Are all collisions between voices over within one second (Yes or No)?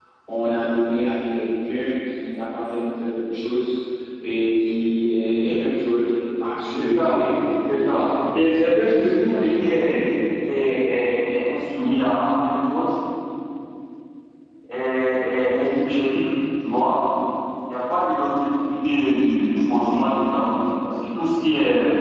No